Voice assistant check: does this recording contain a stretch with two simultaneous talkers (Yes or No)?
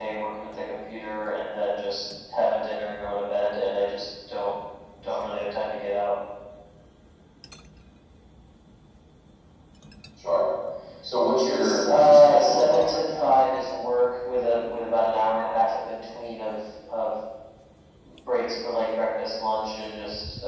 Yes